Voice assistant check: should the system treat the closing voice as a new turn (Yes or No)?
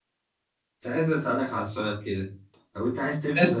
No